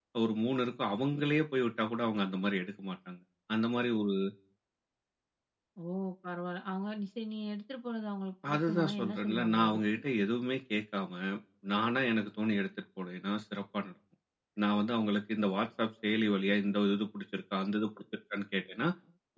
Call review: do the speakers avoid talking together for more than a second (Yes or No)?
No